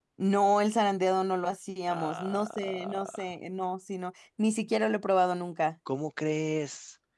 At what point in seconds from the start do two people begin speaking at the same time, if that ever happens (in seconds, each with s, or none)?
1.9 s